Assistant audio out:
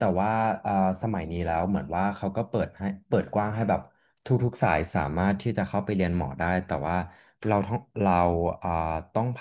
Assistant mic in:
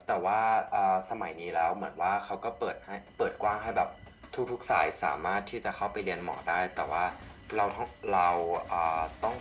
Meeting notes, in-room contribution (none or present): none